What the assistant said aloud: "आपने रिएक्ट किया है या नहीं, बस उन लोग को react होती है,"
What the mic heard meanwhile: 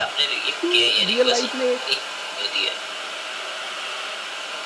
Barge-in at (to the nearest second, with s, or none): 1 s